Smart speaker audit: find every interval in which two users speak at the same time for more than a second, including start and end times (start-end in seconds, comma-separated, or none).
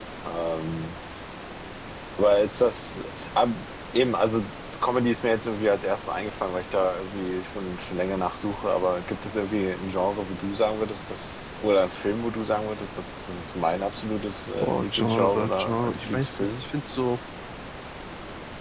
14.6-16.6